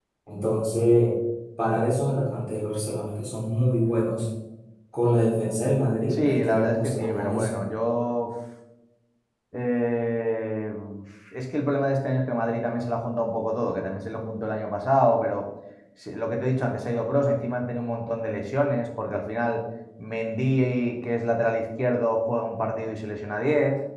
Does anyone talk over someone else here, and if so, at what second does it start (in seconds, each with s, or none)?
6.1 s